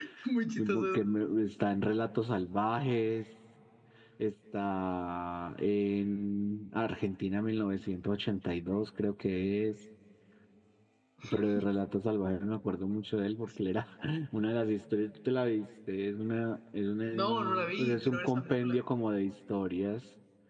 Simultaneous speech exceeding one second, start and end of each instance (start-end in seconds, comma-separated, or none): 17.1-18.8